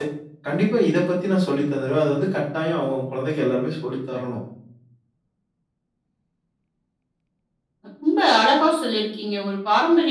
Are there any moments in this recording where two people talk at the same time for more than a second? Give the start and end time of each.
none

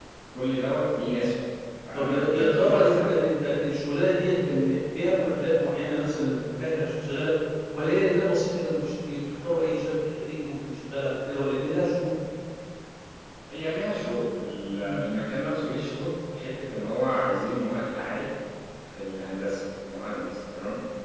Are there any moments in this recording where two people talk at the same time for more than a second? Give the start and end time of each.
1.9-3.2

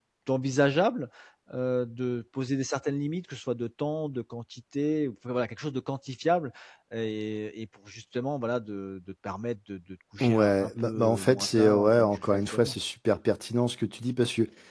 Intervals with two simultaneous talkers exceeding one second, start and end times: 10.2-12.8

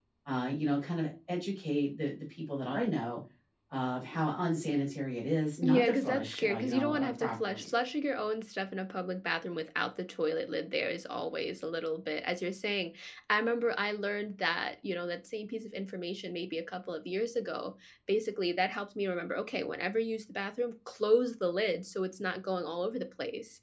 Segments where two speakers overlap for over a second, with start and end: 5.6-7.7

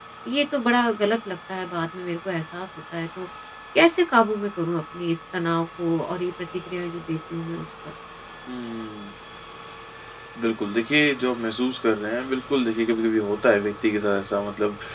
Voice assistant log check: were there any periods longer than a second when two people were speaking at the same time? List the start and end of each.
none

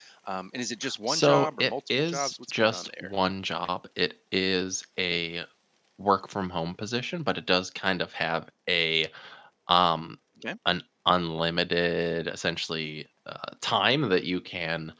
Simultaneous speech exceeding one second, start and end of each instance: 1.1-3.1

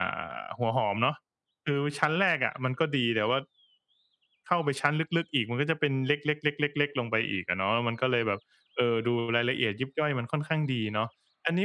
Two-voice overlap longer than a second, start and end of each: none

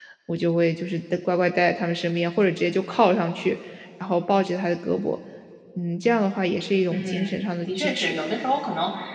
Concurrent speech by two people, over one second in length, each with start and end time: 6.9-8.2

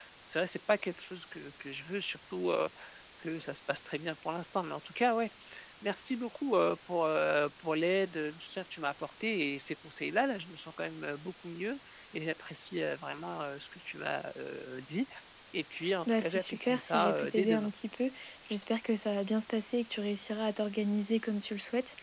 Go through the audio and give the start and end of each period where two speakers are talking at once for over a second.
16.1-17.7

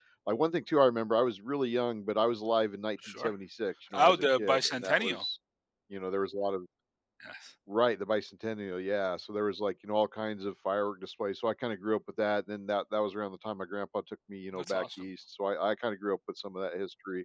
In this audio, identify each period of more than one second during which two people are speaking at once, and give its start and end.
3.9-5.2

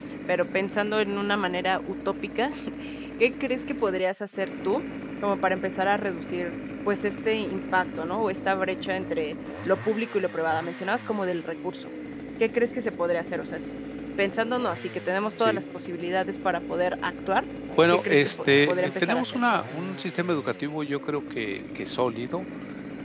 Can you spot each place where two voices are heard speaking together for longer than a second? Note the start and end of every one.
17.9-19.4

